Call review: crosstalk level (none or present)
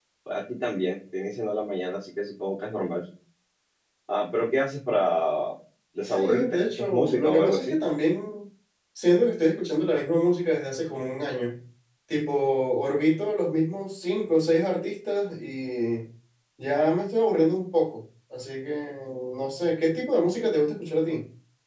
present